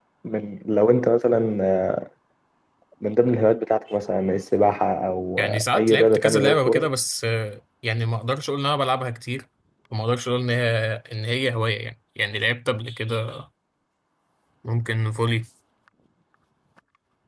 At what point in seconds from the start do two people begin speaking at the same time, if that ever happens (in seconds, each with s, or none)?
5.4 s